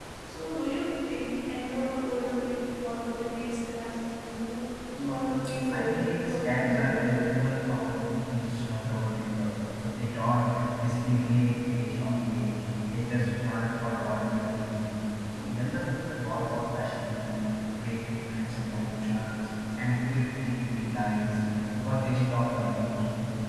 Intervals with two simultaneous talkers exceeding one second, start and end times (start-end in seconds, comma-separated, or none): 5.0-7.2